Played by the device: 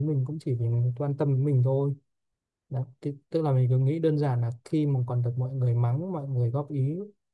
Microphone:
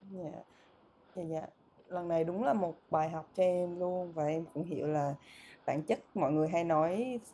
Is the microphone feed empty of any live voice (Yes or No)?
No